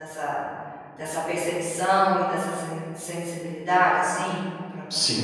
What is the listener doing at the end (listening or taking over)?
taking over